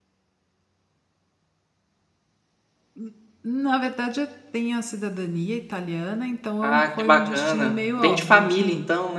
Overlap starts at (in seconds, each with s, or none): 6.6 s